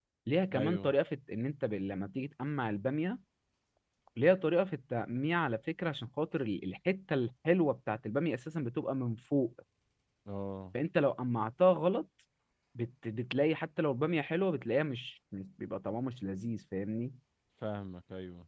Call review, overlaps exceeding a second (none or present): none